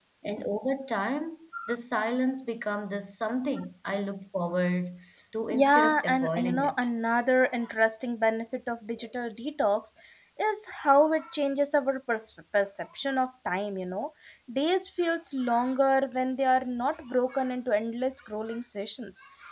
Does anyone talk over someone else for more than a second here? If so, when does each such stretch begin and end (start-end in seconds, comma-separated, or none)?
5.5-6.7